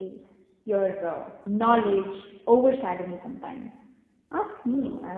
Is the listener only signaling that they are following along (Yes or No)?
No